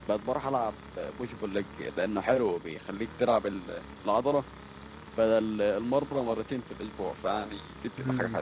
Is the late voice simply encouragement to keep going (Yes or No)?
No